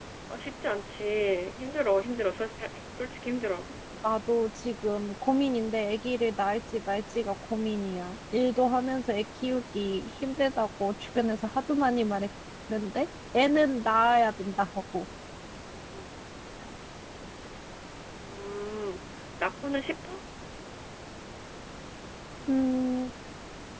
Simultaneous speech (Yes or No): No